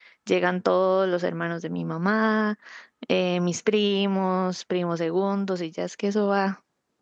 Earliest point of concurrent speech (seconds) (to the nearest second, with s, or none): none